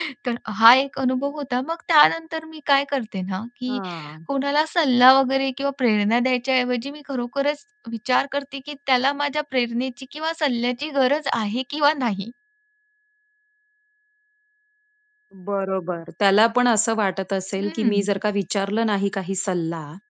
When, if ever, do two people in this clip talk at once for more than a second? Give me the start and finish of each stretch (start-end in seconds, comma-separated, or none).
none